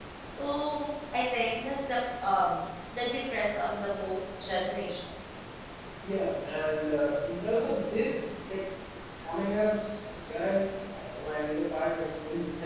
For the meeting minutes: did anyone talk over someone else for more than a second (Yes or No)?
No